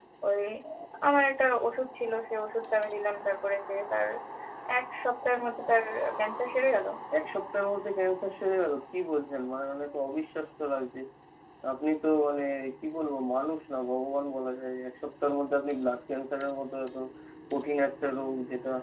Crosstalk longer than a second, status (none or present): none